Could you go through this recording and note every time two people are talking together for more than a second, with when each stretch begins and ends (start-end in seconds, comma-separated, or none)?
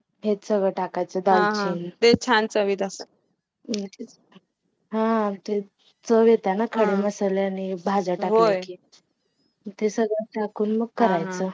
none